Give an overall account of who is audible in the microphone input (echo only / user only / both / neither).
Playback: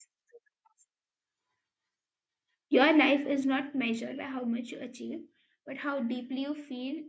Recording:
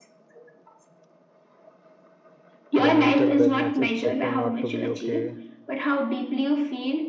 both